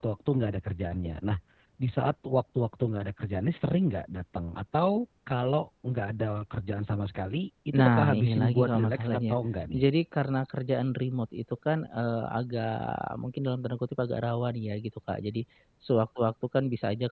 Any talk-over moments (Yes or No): Yes